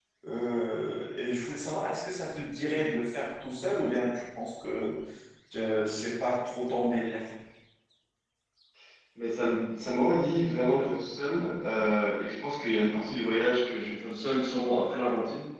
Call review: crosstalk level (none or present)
none